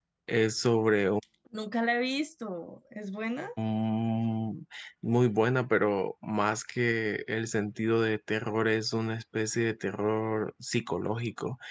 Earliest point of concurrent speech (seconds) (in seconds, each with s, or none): none